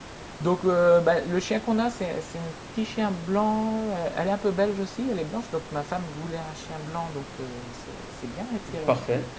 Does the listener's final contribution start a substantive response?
No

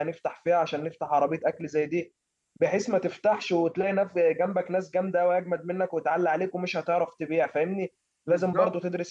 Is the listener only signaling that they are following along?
Yes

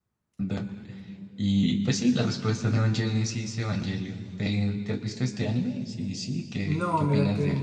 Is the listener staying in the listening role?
No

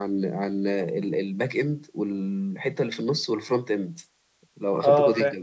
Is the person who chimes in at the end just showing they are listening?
Yes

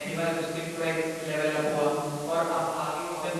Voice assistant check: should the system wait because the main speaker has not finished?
Yes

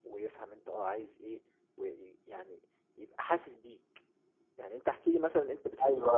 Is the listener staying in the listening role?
No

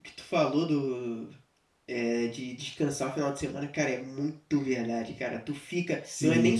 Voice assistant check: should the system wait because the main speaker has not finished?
Yes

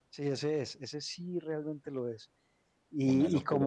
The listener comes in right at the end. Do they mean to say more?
Yes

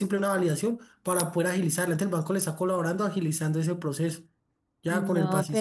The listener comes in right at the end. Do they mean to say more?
Yes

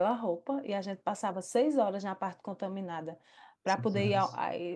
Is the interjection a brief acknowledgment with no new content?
Yes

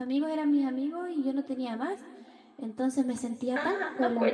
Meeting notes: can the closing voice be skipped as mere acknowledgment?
No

